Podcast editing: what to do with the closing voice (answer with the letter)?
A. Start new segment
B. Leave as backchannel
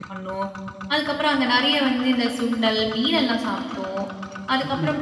B